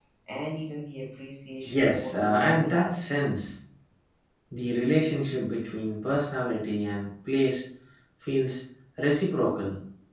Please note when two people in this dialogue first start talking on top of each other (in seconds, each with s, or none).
1.6 s